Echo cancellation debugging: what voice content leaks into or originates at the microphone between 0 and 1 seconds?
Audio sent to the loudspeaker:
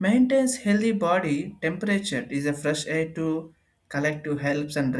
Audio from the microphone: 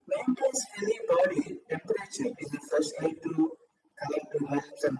echo only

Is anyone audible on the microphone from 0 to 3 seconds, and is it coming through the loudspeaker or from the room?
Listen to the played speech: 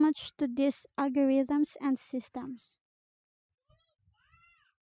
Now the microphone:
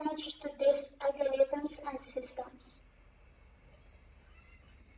echo only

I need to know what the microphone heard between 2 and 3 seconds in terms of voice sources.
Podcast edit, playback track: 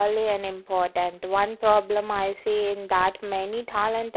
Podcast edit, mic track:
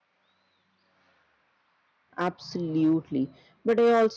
user only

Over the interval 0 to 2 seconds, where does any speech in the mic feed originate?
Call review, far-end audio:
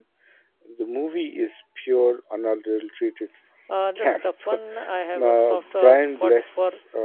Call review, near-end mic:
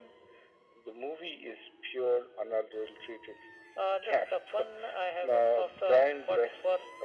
echo only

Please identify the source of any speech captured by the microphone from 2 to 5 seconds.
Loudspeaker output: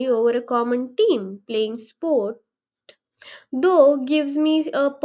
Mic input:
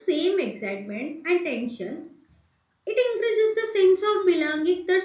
user only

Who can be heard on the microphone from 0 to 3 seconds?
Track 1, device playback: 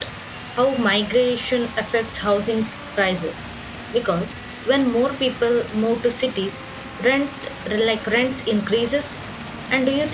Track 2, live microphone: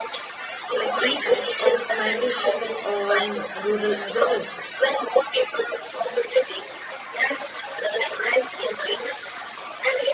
both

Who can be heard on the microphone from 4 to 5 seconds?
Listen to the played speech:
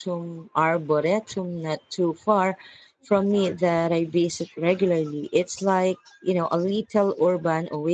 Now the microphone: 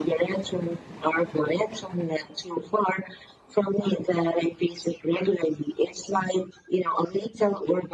echo only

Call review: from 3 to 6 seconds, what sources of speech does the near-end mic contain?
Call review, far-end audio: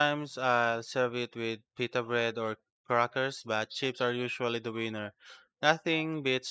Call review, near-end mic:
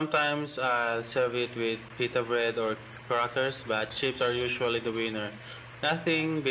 echo only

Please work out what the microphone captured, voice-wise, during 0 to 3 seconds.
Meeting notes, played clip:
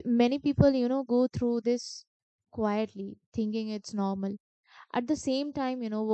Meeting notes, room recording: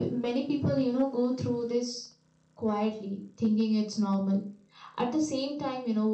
echo only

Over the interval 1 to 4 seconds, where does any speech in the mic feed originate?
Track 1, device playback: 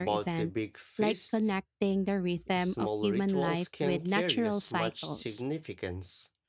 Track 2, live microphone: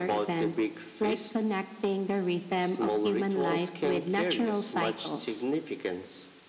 echo only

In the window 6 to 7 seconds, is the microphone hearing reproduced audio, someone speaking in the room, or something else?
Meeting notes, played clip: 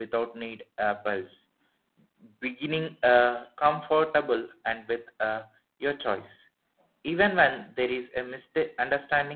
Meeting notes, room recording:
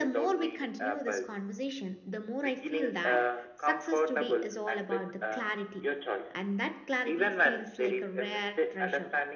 both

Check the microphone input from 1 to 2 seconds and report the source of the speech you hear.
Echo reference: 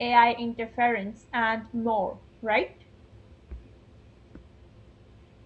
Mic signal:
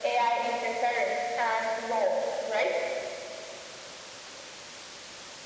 echo only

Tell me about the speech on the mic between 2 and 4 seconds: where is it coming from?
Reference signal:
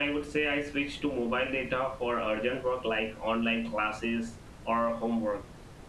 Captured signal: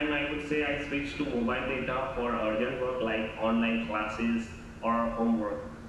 echo only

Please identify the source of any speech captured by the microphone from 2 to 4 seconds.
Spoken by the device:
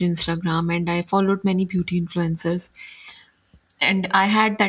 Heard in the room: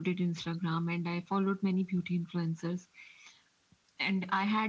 echo only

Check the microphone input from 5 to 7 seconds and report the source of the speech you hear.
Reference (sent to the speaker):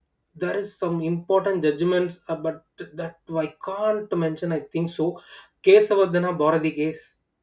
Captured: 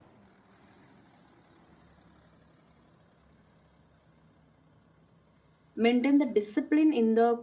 user only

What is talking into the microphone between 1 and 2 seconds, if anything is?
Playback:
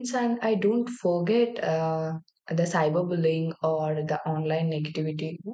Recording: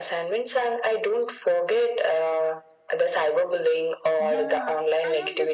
echo only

